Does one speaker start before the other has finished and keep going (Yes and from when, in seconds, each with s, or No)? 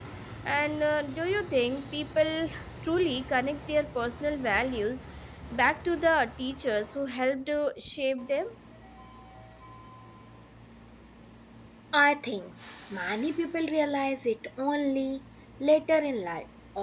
No